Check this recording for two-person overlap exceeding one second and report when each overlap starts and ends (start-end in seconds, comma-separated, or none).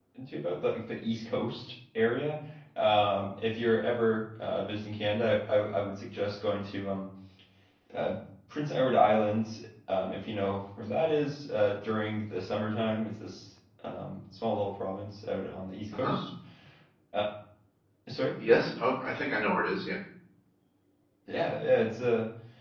none